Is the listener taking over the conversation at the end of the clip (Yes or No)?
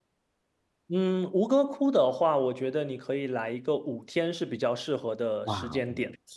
Yes